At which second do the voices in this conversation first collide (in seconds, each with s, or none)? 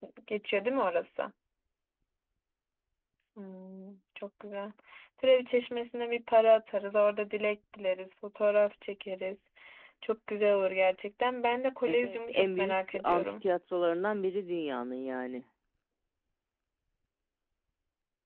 11.9 s